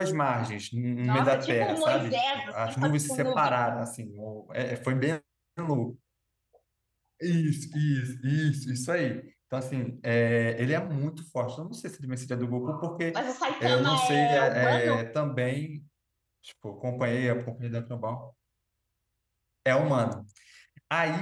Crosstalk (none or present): present